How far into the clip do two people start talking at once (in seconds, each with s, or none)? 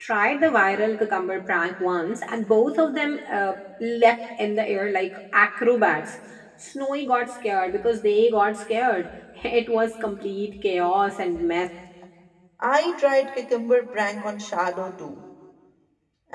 none